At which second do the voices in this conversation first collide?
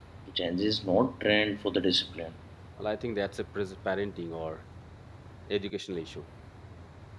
none

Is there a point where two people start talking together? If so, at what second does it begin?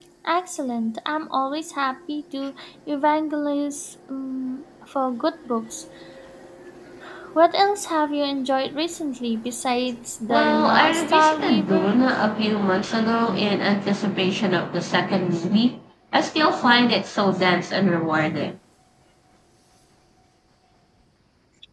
10.3 s

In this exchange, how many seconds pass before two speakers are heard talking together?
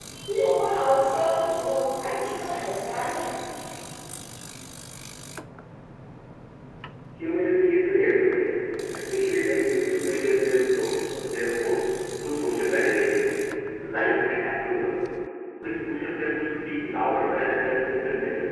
none

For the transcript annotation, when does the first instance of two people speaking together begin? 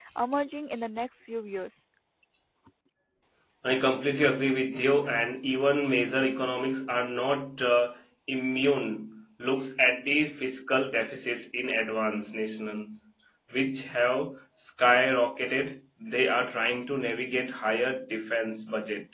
none

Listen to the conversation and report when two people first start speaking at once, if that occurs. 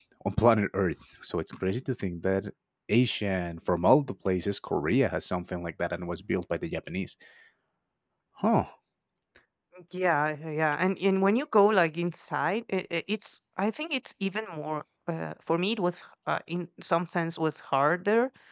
none

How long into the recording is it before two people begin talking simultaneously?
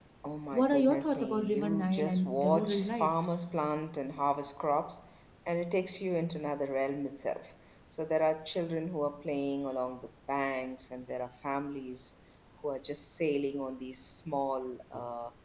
0.5 s

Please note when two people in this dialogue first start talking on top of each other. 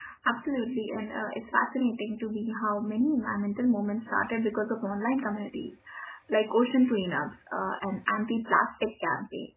none

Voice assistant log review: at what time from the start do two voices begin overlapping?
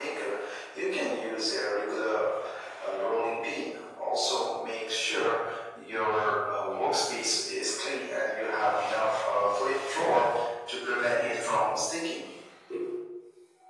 none

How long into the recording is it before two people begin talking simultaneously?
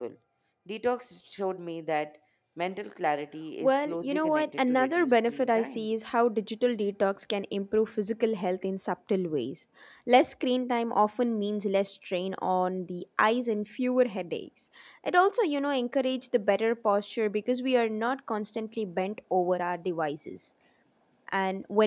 3.6 s

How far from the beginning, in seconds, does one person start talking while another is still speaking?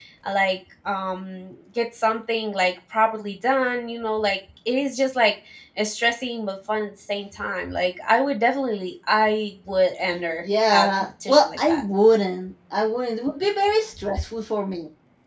10.4 s

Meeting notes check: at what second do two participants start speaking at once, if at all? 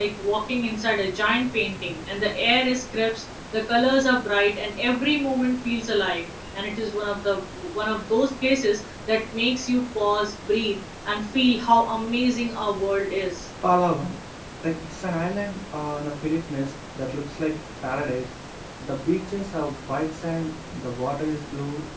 none

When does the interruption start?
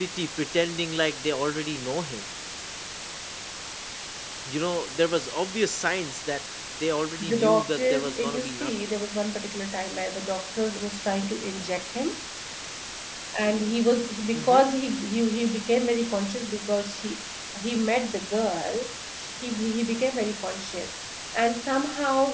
7.2 s

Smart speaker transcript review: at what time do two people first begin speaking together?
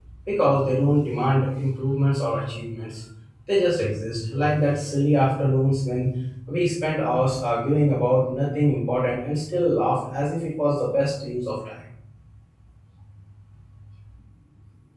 none

